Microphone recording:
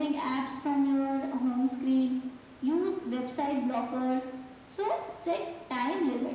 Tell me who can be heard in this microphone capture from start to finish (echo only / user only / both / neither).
echo only